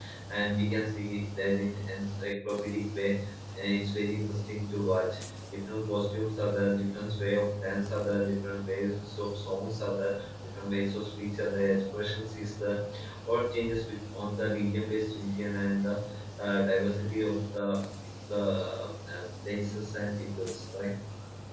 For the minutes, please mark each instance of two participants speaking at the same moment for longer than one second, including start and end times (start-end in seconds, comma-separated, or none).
none